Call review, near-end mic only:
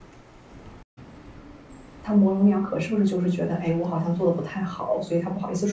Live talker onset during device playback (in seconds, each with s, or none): 2.0 s